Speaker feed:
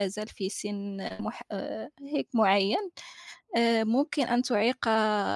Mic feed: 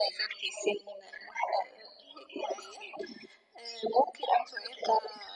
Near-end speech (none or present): none